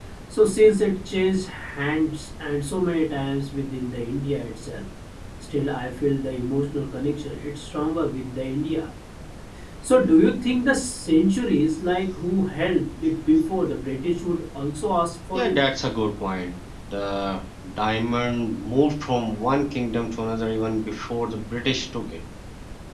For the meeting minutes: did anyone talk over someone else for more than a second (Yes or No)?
No